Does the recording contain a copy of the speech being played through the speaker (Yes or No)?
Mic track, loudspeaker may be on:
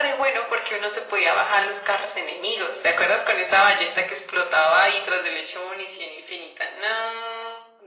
Yes